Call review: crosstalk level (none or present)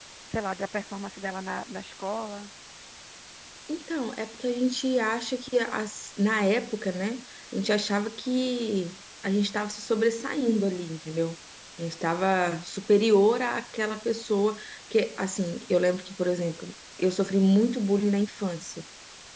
none